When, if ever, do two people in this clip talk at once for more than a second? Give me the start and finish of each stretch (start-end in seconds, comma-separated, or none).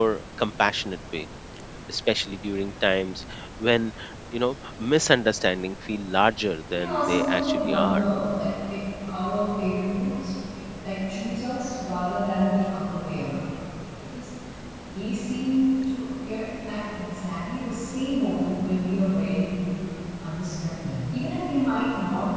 6.7-8.0